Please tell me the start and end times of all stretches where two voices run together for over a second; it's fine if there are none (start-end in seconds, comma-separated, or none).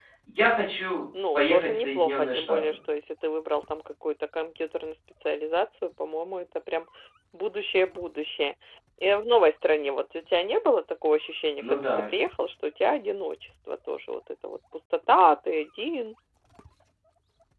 1.4-2.6